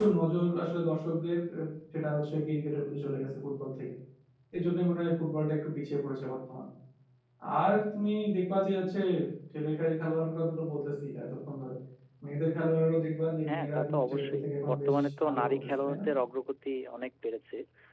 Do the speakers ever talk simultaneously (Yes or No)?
Yes